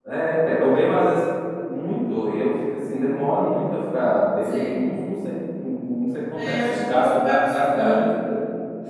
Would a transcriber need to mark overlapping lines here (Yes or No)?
Yes